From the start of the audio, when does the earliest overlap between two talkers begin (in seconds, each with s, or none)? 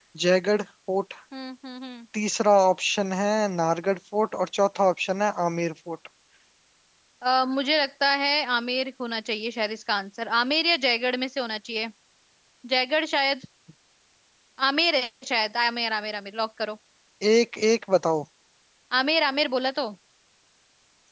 none